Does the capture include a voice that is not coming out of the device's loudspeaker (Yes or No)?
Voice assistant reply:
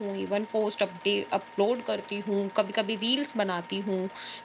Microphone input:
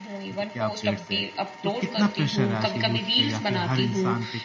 Yes